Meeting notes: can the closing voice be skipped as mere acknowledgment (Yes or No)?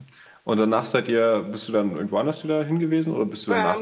No